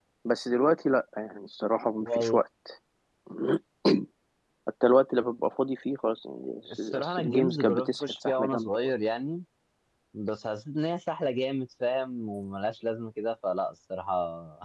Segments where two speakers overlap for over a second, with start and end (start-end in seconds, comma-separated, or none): 6.8-8.8